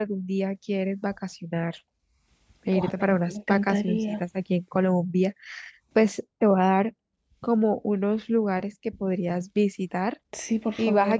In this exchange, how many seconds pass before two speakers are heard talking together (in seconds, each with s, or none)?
2.7 s